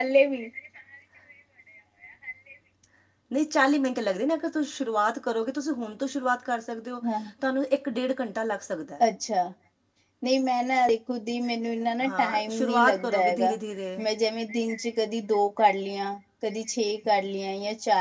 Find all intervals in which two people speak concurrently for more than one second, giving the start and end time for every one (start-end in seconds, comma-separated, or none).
12.1-13.5